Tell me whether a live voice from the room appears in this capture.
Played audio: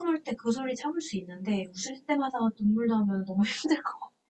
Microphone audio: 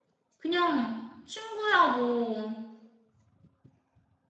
Yes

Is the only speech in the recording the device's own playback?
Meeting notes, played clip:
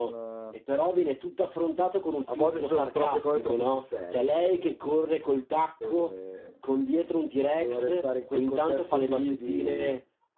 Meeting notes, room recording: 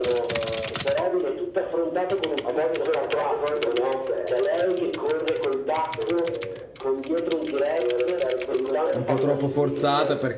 No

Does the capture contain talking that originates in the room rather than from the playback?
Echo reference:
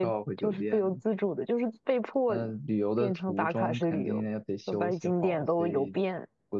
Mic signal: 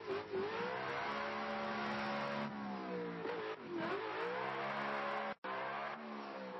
No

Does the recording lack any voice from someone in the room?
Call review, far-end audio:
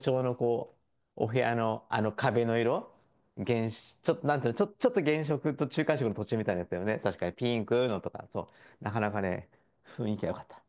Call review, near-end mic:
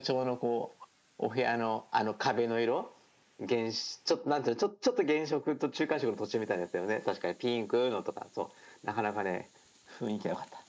Yes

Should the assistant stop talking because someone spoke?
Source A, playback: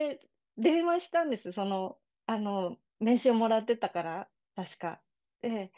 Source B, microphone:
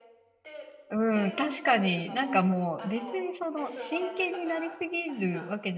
Yes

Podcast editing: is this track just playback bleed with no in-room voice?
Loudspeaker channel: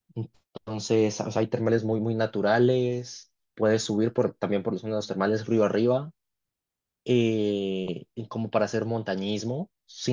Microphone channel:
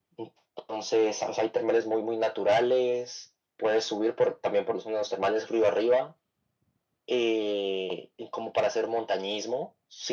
Yes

